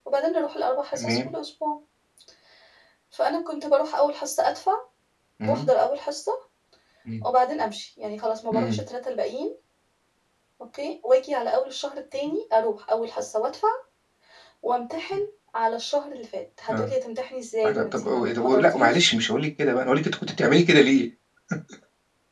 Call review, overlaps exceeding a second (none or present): present